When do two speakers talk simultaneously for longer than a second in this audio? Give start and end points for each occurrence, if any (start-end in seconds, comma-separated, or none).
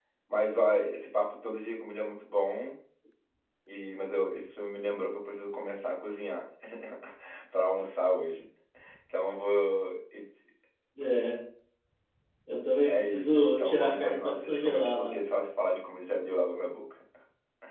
12.9-15.2